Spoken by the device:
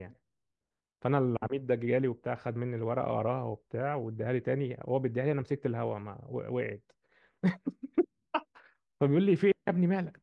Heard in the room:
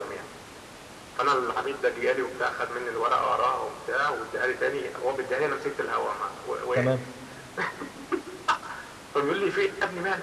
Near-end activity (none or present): present